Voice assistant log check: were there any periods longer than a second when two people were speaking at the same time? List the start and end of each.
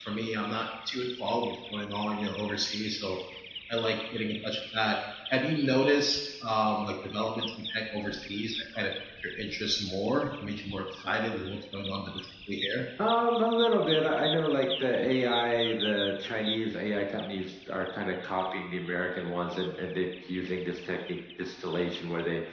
none

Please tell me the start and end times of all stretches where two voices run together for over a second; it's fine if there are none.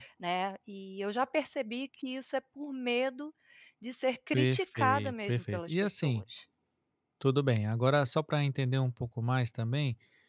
4.3-6.2

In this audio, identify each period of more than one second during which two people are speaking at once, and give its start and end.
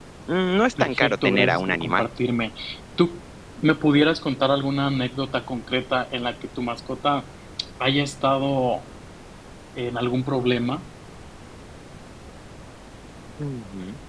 0.8-2.0

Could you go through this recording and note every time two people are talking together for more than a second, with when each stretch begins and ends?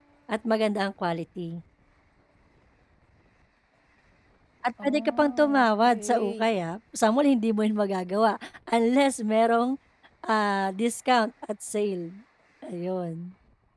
4.8-6.5

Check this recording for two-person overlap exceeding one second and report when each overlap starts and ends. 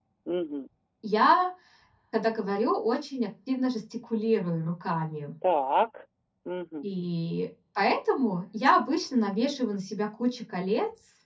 none

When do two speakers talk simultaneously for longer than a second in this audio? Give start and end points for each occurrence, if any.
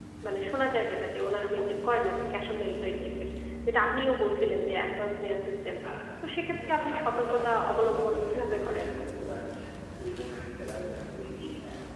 6.2-8.8

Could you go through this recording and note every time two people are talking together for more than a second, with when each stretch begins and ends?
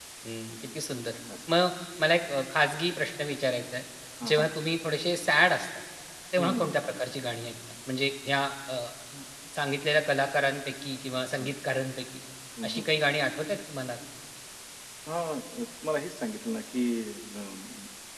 none

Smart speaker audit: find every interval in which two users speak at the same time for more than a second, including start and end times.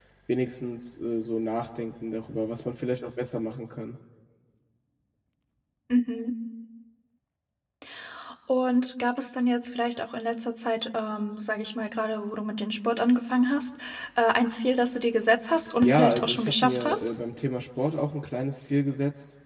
15.8-17.0

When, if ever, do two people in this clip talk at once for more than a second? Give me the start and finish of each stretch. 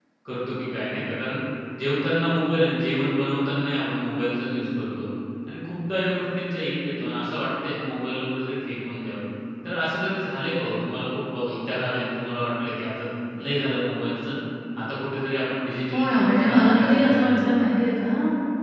15.9-17.4

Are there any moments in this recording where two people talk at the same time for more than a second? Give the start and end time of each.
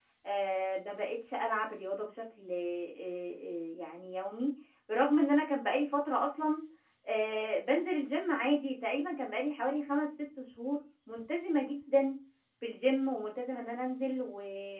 none

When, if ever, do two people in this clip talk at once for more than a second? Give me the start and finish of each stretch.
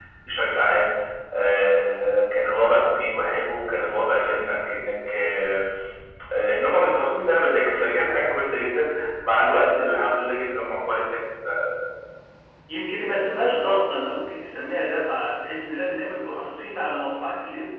none

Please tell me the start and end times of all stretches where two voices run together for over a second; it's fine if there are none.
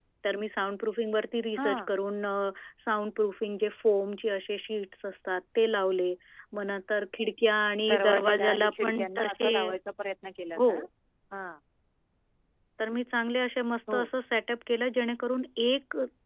7.9-9.5

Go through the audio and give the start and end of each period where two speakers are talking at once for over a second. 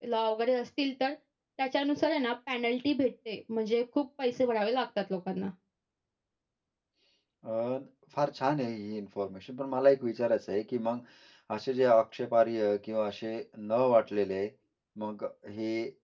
none

